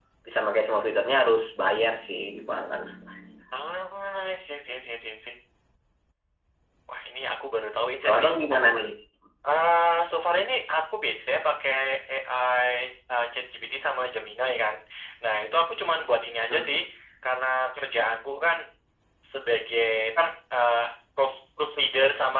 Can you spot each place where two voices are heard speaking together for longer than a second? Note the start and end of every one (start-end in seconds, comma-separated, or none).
none